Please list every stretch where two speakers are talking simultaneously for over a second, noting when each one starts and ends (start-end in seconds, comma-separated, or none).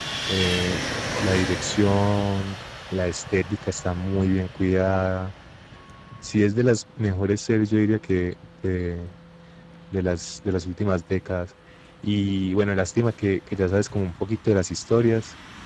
none